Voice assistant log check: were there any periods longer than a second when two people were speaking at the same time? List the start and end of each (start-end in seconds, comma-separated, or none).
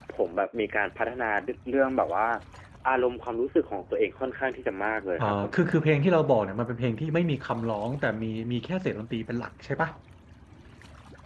none